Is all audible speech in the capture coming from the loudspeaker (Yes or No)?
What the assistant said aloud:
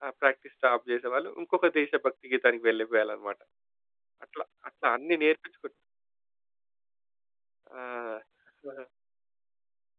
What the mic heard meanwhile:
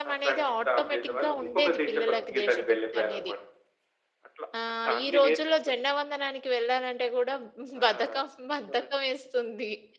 No